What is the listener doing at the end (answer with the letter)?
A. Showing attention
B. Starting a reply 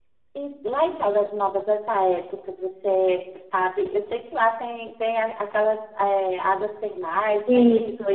B